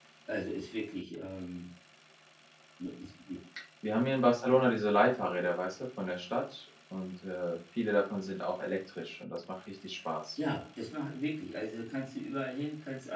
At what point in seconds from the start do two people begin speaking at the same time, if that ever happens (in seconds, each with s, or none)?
none